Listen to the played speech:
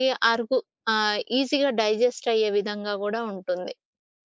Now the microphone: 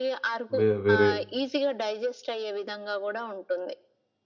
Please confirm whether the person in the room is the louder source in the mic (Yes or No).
Yes